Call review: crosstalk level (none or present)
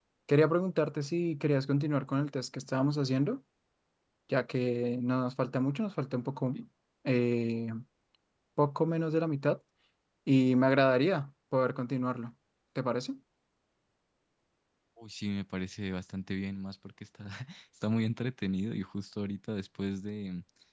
none